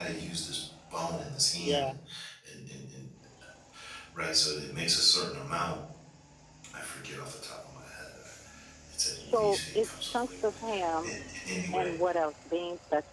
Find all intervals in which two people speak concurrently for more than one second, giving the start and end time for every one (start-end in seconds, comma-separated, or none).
9.1-10.6